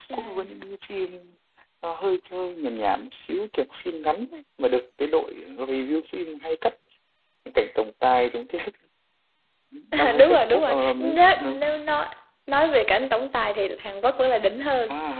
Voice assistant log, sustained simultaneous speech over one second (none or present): present